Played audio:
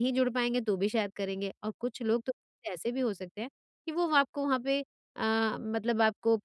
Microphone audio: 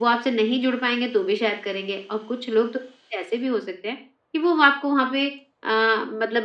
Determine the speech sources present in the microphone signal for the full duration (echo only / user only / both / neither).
echo only